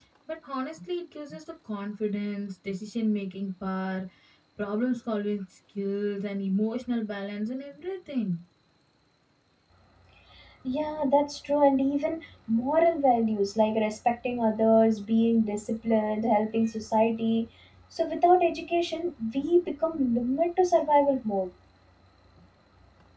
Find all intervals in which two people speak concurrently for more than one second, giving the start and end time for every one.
none

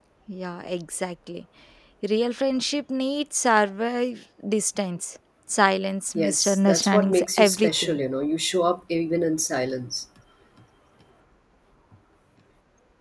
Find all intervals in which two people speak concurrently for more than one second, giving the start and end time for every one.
6.2-8.0

